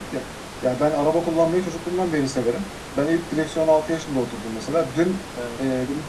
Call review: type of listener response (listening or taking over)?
listening